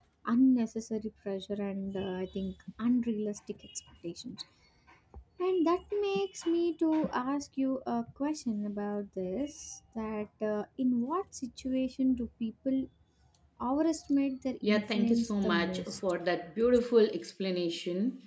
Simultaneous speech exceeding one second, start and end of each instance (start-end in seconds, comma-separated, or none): 14.6-16.0